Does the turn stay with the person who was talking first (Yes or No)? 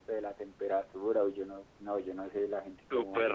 No